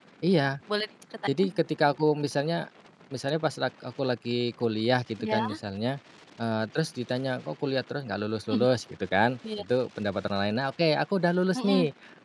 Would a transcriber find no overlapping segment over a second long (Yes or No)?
Yes